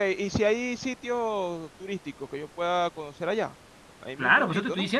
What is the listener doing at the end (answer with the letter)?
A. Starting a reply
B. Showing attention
A